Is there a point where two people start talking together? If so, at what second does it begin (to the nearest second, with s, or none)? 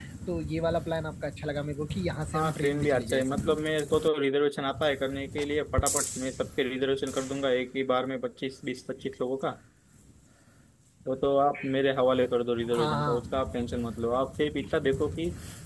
2 s